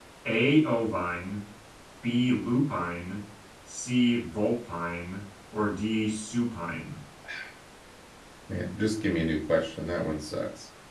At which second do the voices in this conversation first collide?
none

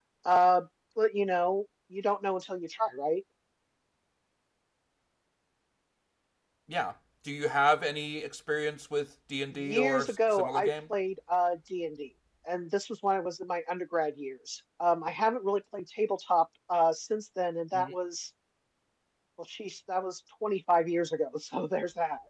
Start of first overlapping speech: 9.5 s

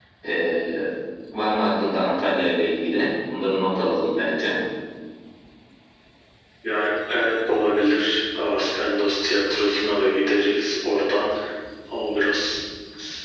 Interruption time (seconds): none

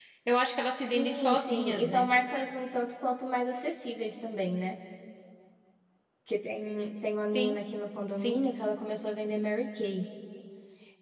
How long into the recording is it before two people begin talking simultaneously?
0.9 s

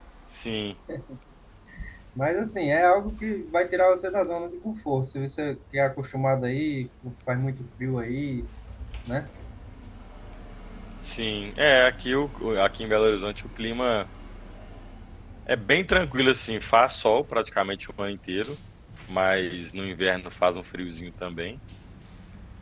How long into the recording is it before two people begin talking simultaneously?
none

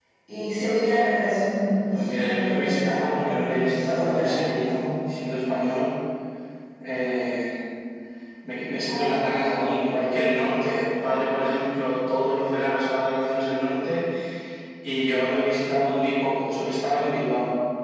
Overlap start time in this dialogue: 1.9 s

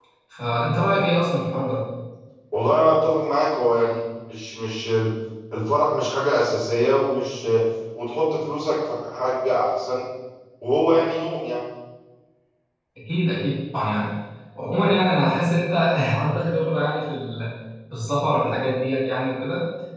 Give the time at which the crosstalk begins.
none

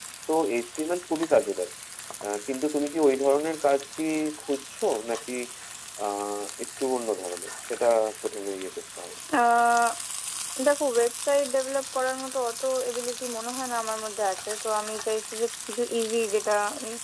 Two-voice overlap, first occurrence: none

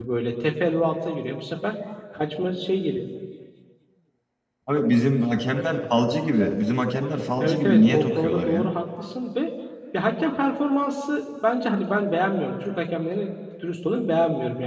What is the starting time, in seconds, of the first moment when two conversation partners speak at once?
7.4 s

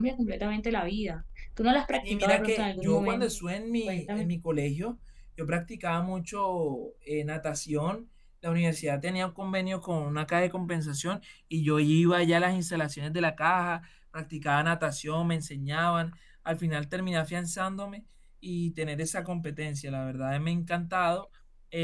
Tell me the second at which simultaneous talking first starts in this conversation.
2.0 s

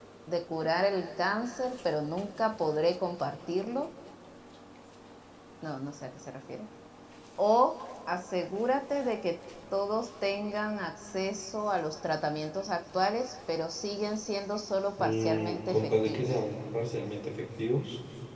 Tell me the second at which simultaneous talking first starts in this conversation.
15.0 s

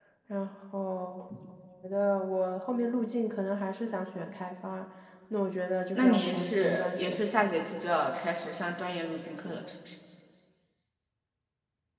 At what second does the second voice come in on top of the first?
6.0 s

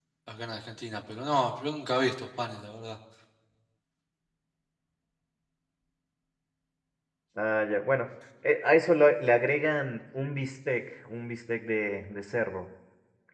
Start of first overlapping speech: none

